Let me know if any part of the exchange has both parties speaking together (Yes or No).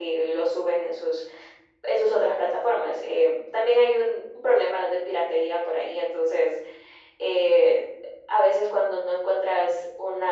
No